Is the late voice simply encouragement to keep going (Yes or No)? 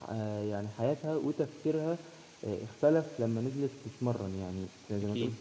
Yes